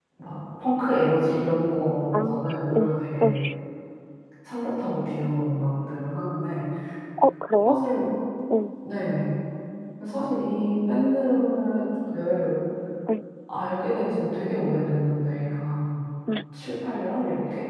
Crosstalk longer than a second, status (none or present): none